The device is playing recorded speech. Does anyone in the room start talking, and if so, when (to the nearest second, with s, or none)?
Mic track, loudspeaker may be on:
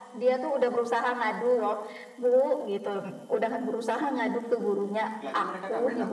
5 s